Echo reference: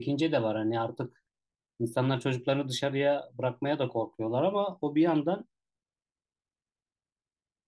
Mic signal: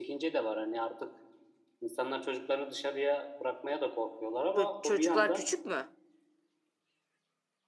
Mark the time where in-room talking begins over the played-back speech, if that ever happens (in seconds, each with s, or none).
4.5 s